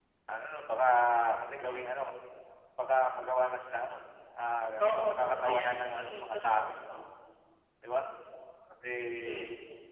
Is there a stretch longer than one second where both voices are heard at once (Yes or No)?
Yes